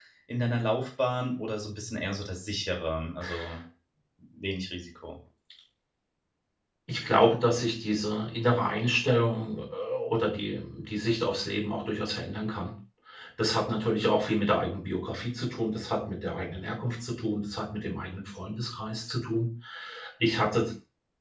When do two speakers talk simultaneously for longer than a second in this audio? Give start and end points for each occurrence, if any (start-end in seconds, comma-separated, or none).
none